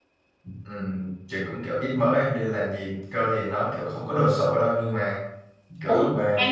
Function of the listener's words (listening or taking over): taking over